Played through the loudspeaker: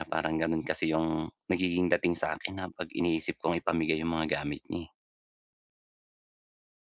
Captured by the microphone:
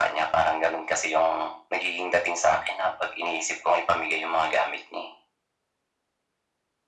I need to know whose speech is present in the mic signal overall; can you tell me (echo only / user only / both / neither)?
echo only